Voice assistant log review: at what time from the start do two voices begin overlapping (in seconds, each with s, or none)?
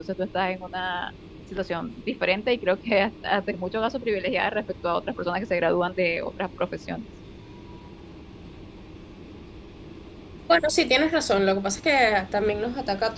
none